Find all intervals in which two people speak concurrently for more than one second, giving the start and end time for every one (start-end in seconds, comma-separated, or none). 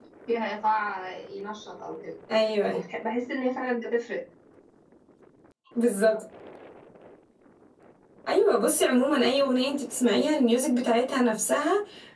none